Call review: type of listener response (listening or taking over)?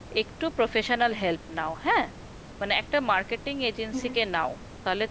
listening